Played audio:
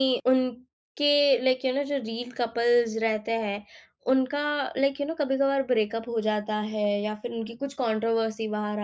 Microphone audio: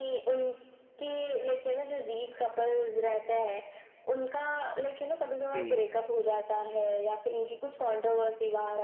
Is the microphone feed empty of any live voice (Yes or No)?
No